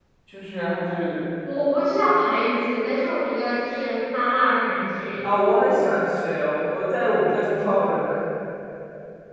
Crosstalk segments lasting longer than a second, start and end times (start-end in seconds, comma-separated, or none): none